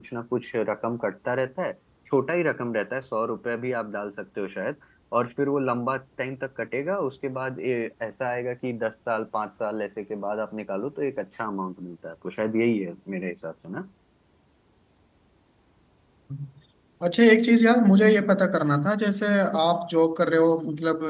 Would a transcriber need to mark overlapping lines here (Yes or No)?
No